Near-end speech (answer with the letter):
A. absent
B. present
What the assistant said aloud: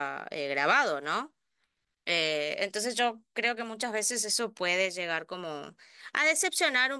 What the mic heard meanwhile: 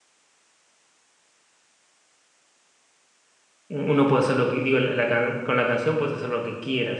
B